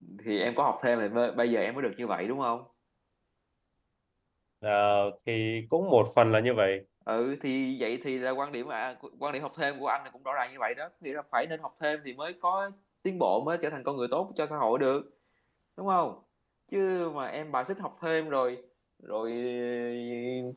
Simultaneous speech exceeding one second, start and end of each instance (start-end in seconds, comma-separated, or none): none